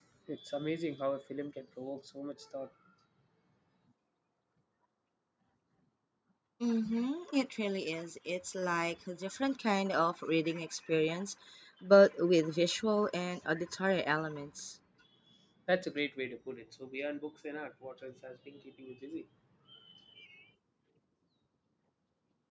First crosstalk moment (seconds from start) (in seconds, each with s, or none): none